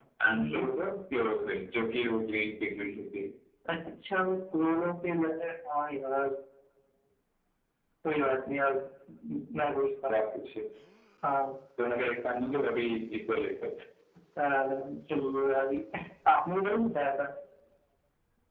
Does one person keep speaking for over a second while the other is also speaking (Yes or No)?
No